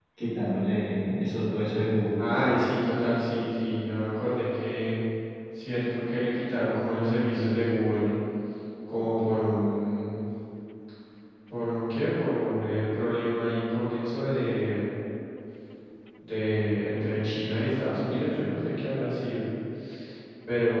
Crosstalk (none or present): none